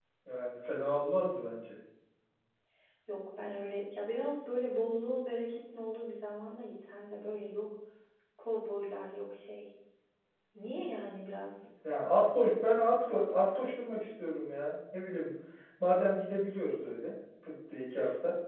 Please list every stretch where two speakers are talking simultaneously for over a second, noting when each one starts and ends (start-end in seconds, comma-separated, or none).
none